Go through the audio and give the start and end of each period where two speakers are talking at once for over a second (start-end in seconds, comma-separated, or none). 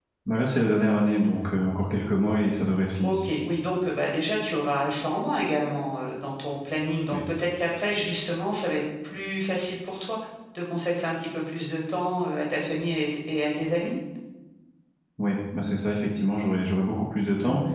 none